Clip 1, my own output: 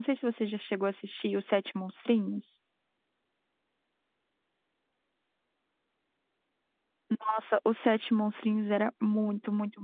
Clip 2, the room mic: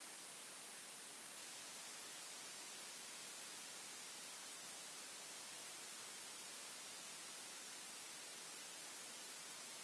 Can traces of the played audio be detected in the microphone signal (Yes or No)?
No